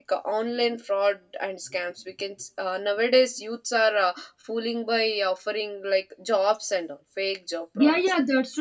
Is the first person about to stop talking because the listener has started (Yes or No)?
Yes